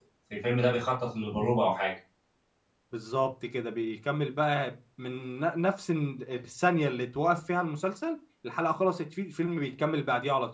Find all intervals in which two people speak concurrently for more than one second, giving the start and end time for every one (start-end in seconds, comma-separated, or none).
none